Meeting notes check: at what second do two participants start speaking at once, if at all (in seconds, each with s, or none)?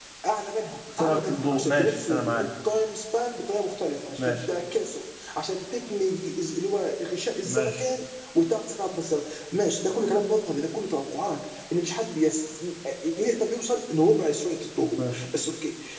1.0 s